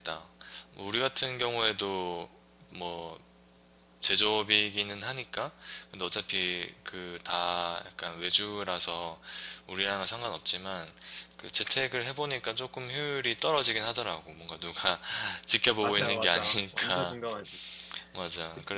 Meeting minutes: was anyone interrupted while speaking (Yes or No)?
Yes